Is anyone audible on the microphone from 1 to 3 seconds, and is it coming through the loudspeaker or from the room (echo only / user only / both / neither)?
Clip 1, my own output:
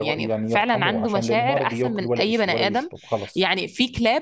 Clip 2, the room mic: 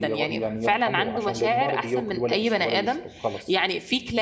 echo only